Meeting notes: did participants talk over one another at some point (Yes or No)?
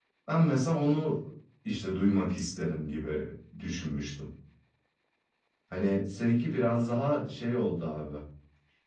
No